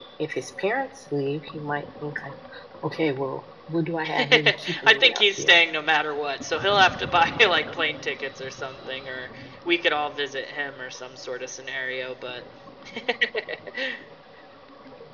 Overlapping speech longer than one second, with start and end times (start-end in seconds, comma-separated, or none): 4.2-5.6